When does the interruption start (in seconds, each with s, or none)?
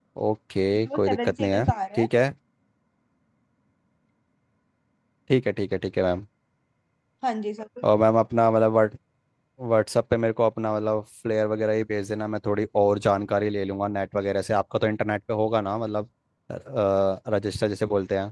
0.8 s